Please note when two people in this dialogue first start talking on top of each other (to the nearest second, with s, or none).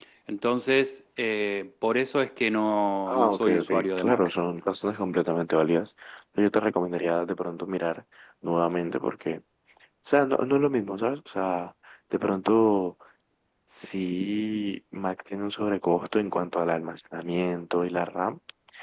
3 s